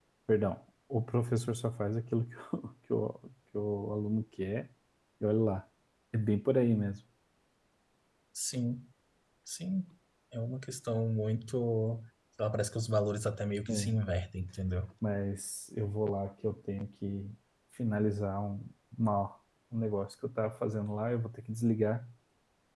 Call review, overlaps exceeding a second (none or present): none